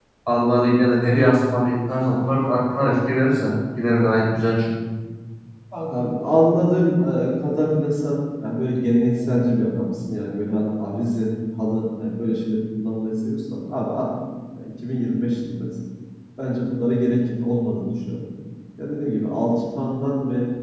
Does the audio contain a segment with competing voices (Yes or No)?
No